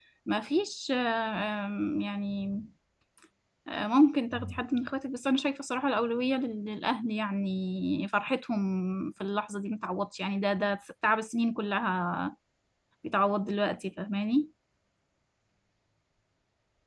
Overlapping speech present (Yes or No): No